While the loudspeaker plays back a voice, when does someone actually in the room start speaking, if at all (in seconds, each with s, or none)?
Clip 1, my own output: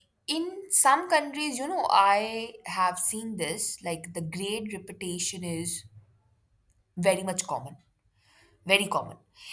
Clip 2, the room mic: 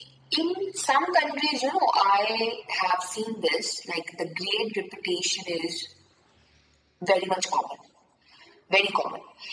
none